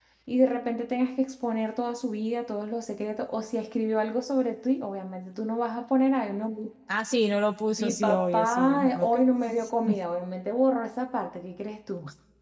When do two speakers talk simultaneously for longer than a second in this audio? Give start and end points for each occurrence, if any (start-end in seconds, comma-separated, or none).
7.8-9.2